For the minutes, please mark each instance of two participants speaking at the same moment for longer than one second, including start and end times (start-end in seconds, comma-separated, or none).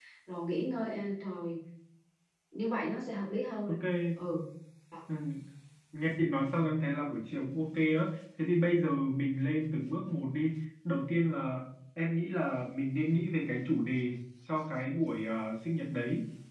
none